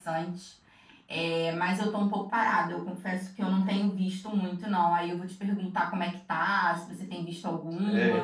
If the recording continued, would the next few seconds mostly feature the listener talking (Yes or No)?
Yes